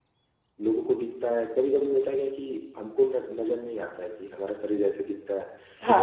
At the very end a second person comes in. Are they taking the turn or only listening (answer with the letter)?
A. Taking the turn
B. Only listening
B